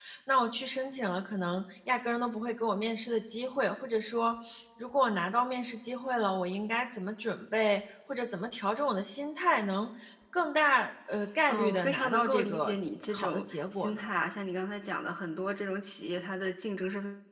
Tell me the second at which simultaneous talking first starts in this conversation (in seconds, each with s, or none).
11.5 s